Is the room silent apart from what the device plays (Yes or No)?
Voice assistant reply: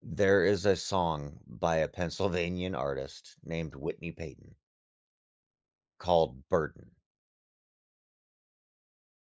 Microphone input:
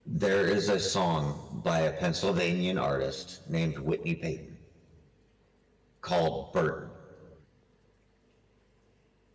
Yes